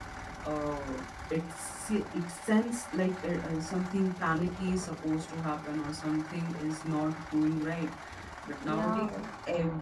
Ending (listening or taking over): listening